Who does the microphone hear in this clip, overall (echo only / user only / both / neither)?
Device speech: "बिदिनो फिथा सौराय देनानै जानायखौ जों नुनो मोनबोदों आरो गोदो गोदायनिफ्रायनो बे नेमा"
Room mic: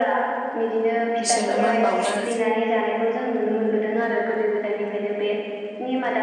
both